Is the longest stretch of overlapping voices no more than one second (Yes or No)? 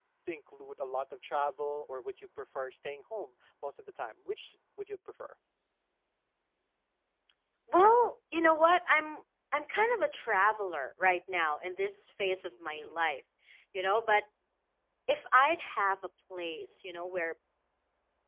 Yes